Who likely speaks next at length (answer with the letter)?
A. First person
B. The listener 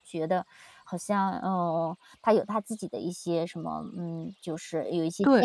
B